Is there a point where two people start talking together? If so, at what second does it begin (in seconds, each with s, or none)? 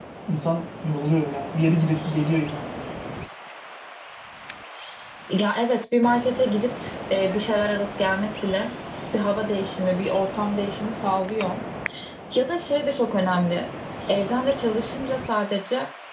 none